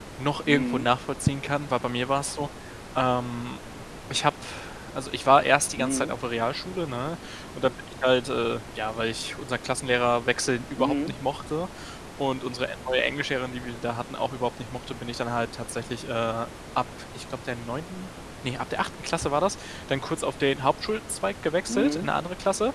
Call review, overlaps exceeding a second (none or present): none